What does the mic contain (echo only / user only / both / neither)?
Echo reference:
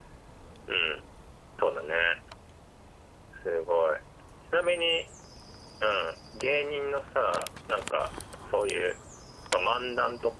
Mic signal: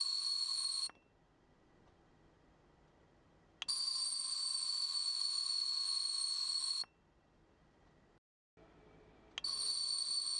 neither